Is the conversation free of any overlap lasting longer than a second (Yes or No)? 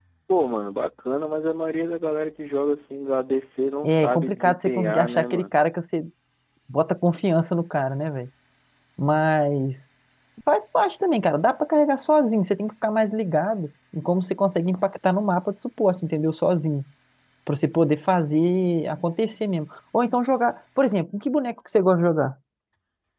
No